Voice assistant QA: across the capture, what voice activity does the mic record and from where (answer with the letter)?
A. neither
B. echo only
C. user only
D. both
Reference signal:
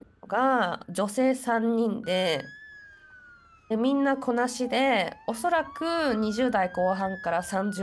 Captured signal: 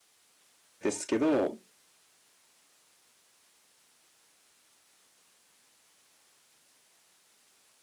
C